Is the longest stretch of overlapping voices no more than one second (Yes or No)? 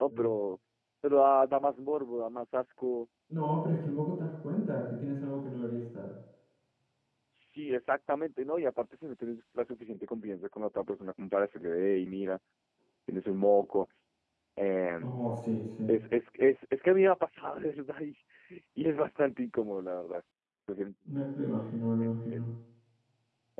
Yes